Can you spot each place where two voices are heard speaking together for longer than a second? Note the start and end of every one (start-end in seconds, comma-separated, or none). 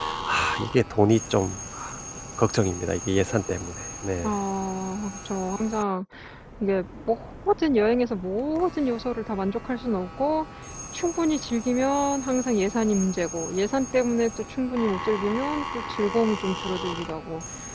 none